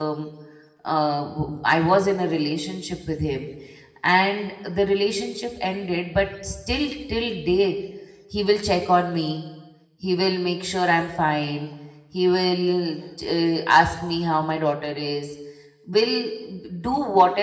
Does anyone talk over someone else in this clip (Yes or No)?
No